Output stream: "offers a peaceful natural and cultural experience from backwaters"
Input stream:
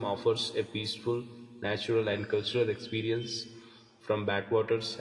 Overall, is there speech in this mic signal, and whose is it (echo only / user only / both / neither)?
echo only